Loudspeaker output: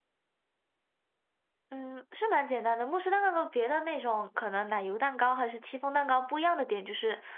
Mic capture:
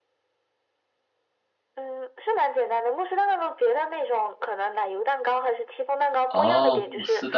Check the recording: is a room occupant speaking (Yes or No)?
Yes